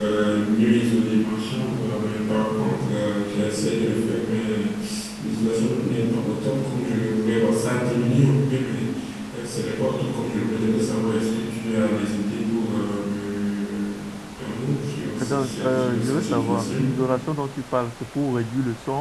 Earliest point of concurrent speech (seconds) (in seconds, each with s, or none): 15.2 s